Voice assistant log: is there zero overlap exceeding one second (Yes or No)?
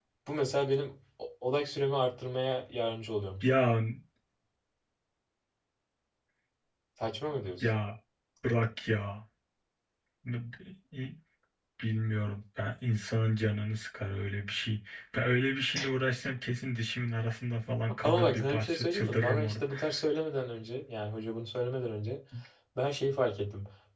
No